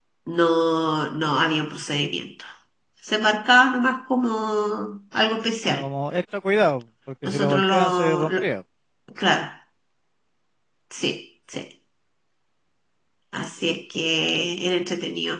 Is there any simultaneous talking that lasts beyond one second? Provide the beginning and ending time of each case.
7.2-8.5

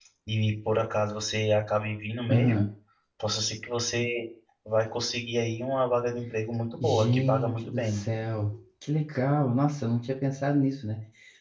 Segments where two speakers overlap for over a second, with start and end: 6.8-8.1

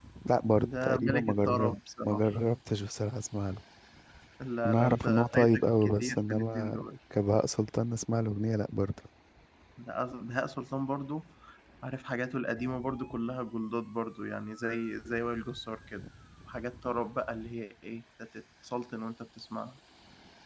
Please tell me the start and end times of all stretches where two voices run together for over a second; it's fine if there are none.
0.8-2.2, 4.6-6.9

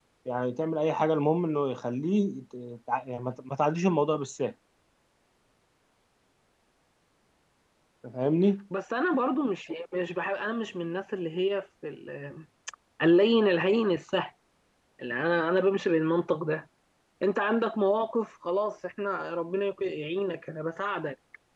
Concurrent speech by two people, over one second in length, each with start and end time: none

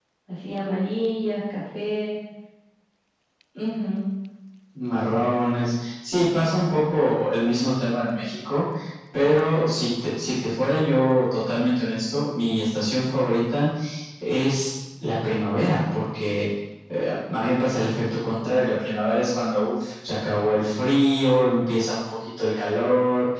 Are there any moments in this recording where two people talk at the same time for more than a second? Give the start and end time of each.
none

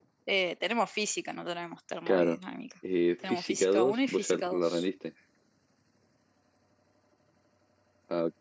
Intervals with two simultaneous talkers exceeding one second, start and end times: 3.2-4.8

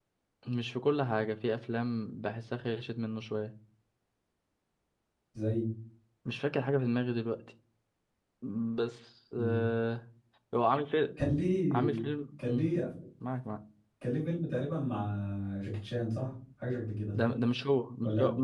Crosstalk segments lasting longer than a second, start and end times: none

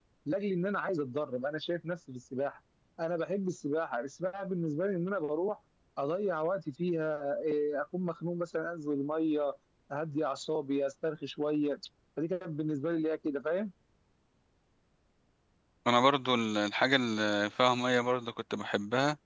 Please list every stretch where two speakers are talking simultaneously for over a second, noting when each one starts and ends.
none

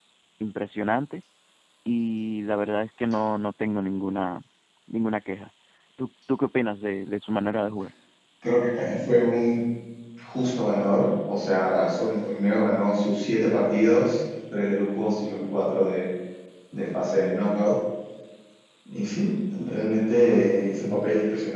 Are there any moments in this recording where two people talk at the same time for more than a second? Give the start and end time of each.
none

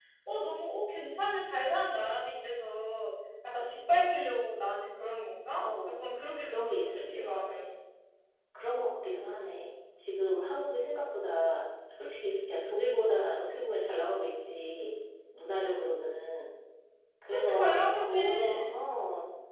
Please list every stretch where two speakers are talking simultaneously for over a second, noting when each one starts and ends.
6.4-7.6, 17.3-18.8

